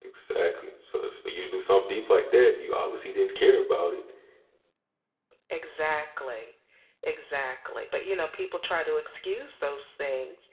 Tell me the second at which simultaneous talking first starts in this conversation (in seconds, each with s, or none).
none